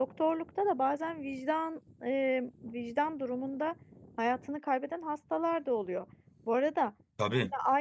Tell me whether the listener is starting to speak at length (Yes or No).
No